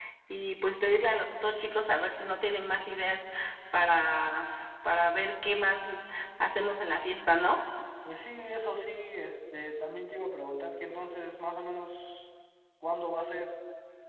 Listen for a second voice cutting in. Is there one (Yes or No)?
No